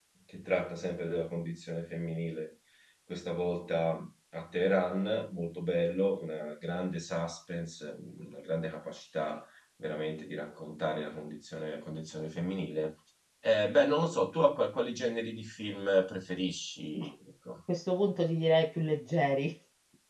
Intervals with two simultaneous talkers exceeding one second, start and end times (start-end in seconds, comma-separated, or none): none